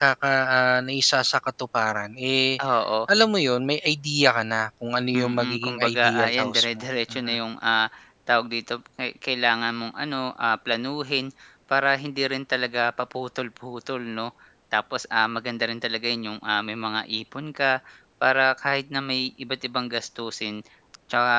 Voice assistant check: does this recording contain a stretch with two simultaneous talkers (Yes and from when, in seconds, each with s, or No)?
Yes, from 5.1 s